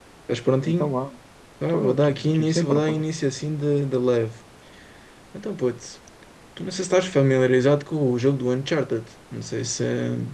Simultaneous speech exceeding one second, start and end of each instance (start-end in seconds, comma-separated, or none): 1.7-3.0